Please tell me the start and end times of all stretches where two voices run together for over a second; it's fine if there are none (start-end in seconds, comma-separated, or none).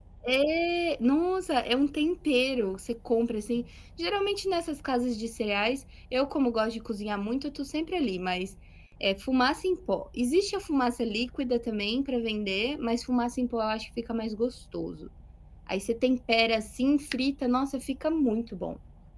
none